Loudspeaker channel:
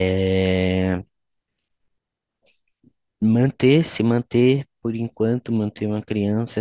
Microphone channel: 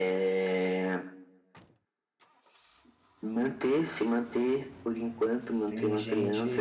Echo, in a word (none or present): present